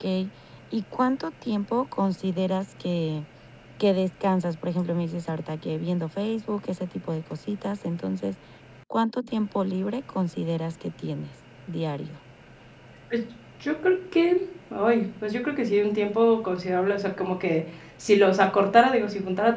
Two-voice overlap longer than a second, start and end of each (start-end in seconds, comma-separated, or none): none